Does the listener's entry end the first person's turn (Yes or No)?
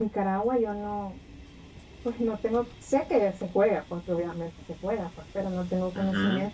No